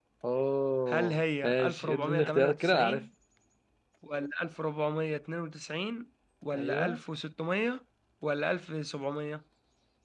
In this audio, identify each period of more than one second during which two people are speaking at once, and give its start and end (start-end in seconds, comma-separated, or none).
0.9-3.0